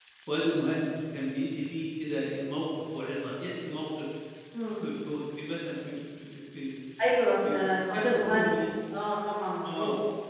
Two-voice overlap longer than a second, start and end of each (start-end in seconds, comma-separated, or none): 7.4-8.7